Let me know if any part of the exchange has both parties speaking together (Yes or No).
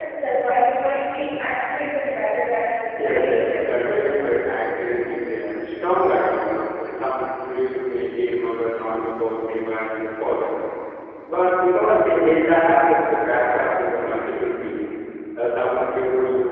Yes